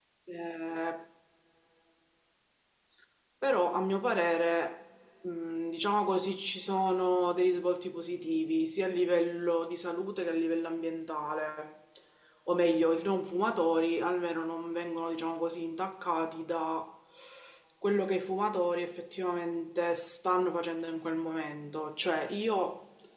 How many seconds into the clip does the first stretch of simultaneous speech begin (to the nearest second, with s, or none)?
none